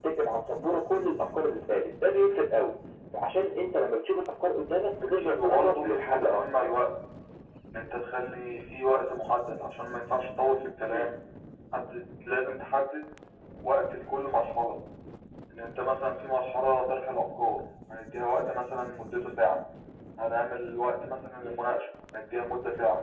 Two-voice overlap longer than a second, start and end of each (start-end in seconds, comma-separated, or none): 5.1-6.7